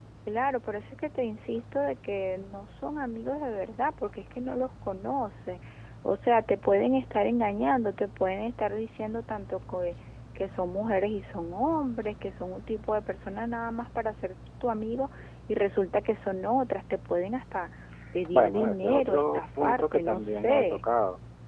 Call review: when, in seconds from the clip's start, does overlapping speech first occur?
18.3 s

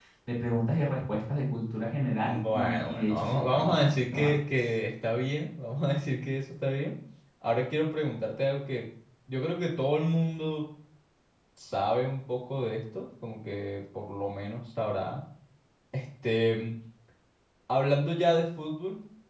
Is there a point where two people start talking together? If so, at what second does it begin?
2.2 s

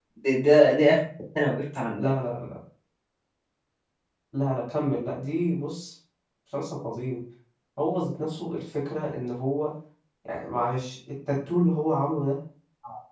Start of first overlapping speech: none

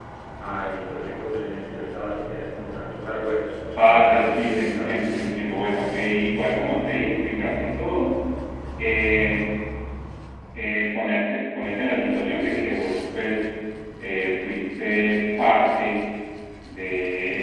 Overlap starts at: 3.8 s

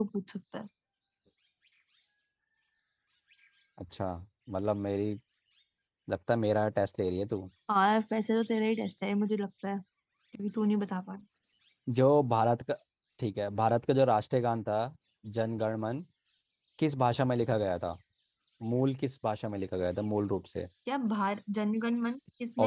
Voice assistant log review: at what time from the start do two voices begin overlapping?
none

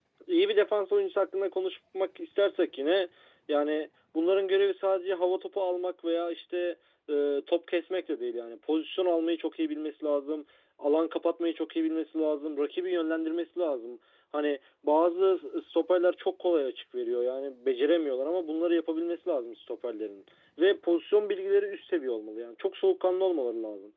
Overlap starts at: none

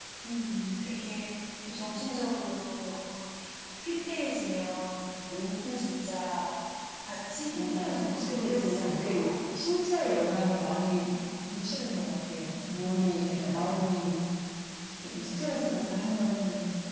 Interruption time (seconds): 7.5 s

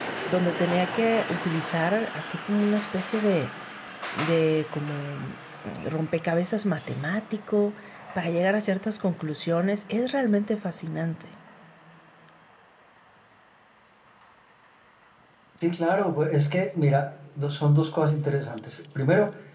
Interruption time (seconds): none

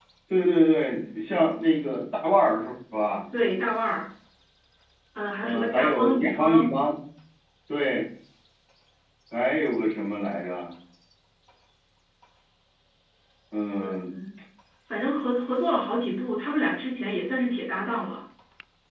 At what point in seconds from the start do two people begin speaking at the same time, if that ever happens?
5.4 s

